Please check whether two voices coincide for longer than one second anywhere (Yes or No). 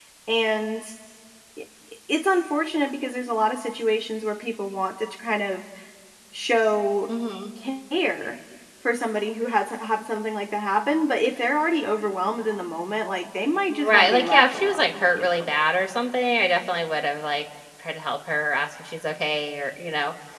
Yes